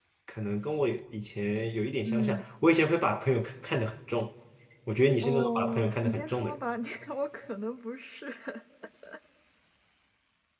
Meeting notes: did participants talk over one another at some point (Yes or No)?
Yes